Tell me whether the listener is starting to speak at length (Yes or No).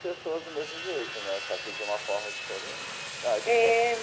Yes